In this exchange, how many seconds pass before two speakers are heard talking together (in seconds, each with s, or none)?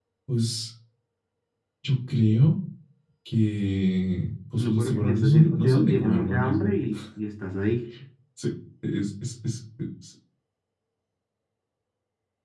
4.6 s